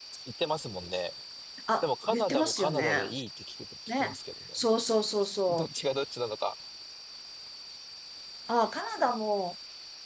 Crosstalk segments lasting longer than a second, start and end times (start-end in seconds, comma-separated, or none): 1.8-3.1